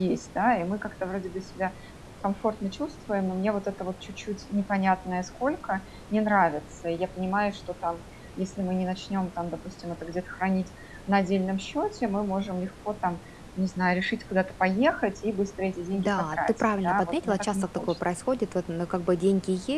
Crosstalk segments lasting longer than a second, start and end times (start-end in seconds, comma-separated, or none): 15.9-18.0